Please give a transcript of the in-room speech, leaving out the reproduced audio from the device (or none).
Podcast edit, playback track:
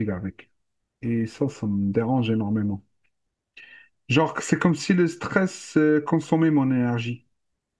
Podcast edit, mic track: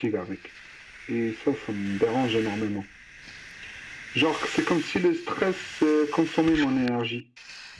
none